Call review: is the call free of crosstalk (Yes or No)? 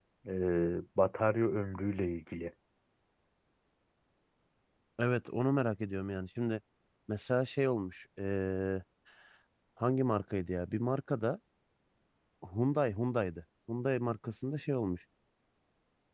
Yes